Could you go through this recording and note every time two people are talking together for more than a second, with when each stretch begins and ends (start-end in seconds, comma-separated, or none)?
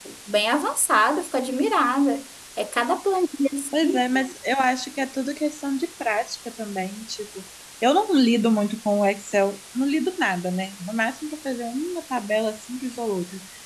none